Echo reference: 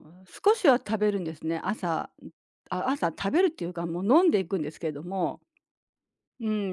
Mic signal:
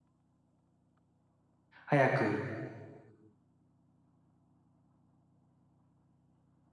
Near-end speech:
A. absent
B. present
B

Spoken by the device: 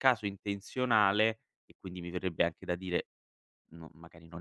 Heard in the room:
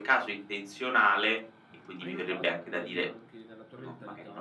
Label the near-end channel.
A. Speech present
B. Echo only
A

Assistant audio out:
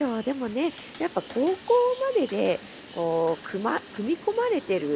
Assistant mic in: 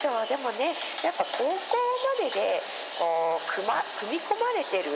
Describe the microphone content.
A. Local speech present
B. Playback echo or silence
B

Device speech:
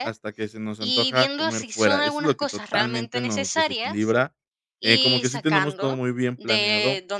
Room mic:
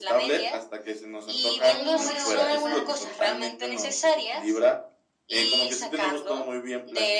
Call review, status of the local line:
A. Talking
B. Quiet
A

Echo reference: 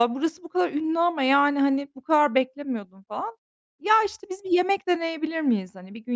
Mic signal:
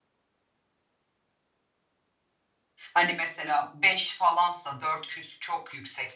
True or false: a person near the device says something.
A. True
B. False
A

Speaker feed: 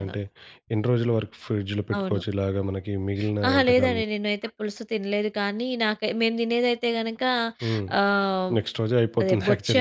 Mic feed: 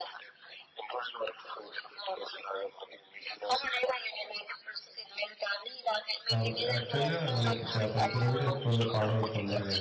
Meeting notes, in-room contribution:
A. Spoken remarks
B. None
A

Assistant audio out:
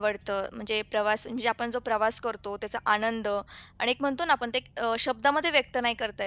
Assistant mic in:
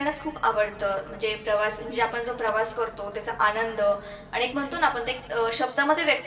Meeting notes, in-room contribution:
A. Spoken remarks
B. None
B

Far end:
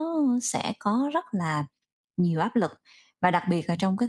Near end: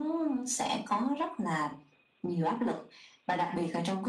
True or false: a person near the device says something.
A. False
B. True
A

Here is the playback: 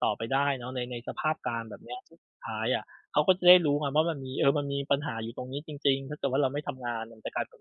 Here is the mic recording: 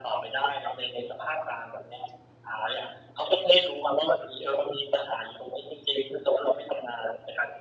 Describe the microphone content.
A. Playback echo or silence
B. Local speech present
A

